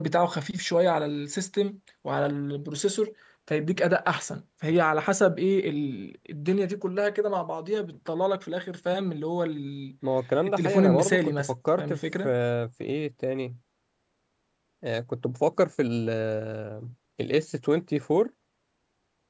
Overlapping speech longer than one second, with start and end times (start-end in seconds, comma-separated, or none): 10.5-12.3